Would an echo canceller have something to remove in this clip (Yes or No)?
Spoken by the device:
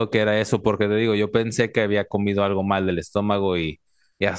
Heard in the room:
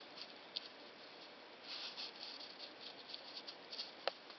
No